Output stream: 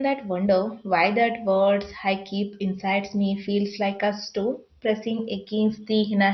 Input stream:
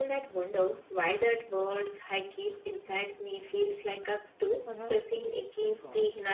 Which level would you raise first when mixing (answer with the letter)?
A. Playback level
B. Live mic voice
B